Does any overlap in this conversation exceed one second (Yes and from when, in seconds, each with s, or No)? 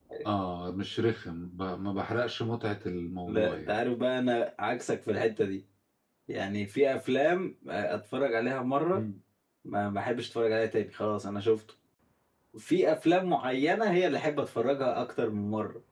No